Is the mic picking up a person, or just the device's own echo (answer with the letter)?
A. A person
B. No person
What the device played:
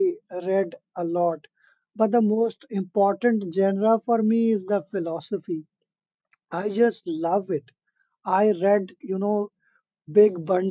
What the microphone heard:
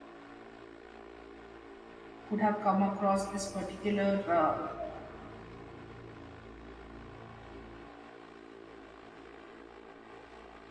A